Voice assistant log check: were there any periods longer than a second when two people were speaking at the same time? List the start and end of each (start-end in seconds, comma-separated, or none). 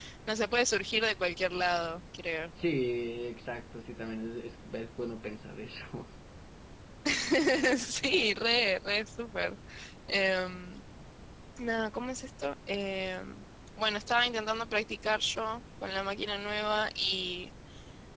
none